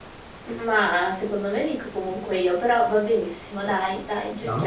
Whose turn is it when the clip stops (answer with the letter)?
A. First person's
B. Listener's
B